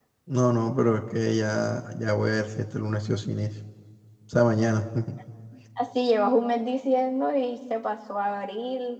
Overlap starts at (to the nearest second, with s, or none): none